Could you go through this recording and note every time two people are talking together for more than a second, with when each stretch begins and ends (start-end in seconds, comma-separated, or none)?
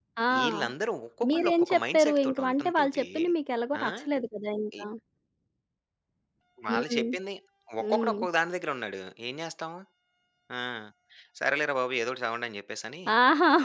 1.3-3.0